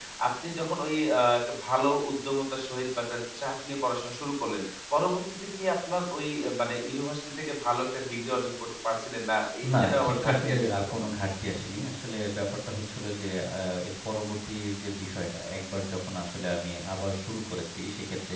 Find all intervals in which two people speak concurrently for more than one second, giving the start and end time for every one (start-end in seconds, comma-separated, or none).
9.8-11.1